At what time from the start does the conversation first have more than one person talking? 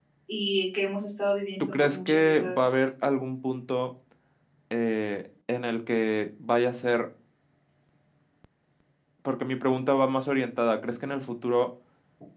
1.6 s

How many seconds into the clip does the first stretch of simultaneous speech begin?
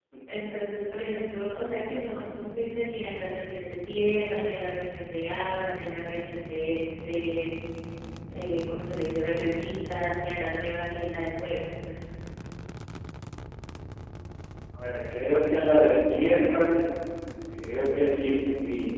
none

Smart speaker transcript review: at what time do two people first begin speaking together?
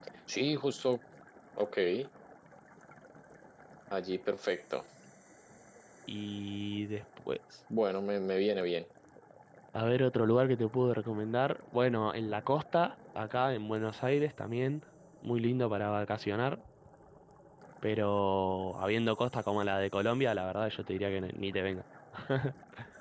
none

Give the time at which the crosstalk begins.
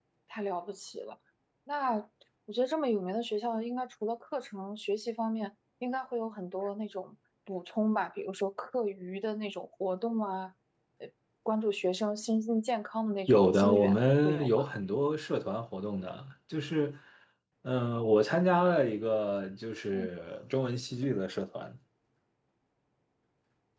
13.3 s

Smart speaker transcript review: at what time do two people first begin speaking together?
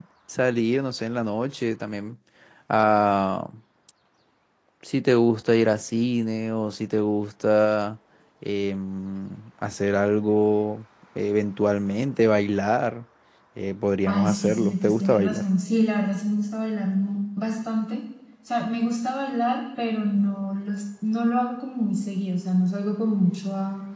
14.1 s

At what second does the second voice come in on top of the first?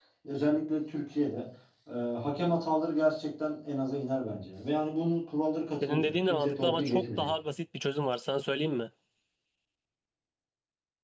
5.8 s

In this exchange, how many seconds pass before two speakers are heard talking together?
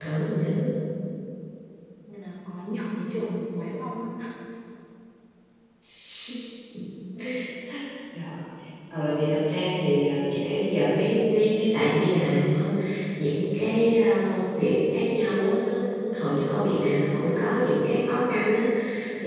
none

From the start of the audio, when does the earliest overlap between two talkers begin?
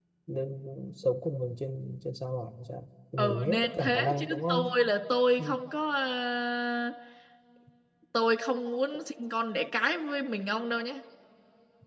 3.2 s

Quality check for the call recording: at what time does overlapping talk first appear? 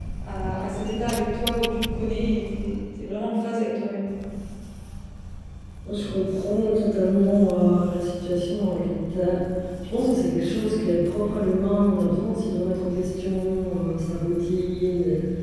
none

